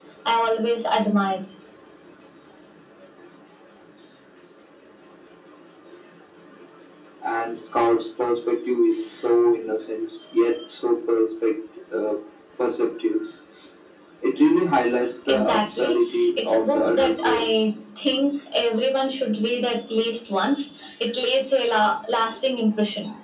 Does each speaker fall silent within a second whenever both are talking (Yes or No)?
No